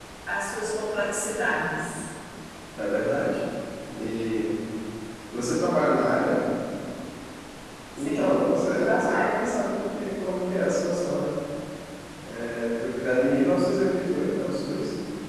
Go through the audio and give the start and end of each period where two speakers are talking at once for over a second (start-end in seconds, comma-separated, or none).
8.0-9.3